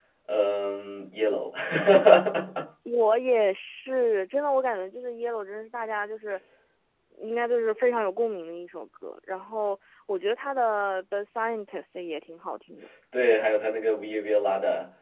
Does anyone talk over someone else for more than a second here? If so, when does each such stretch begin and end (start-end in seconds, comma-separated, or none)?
none